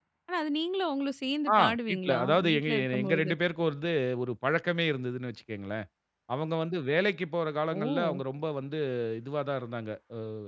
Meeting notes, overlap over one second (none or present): present